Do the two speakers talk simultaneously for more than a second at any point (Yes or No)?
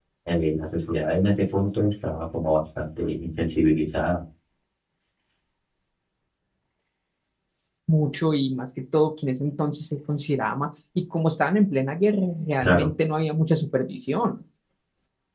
No